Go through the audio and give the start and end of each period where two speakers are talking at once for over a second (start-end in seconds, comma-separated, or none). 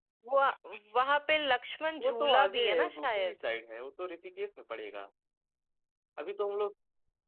2.0-3.4